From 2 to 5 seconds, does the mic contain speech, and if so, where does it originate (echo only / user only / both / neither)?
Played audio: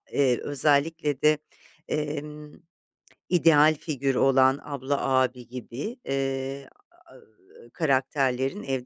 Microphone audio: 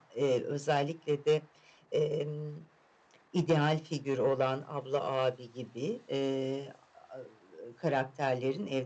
echo only